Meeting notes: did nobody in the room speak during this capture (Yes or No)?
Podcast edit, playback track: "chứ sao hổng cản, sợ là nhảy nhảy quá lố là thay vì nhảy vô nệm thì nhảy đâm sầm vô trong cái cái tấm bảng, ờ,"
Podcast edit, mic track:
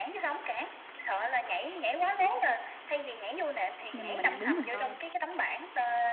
No